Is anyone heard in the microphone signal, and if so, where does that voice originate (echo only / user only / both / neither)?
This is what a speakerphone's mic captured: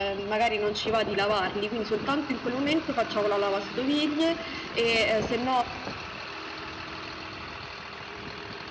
echo only